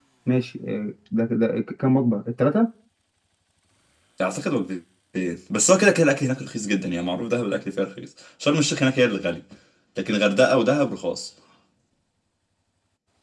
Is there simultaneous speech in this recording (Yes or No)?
No